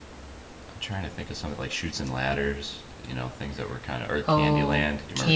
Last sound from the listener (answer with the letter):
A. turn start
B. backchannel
A